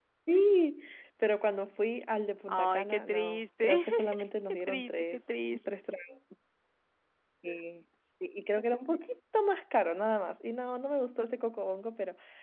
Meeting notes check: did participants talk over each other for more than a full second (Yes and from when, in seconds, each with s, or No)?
Yes, from 2.5 s